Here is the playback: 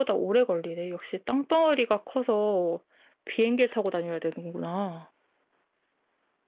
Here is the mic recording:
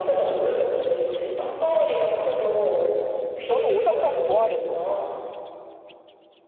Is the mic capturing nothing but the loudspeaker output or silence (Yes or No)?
No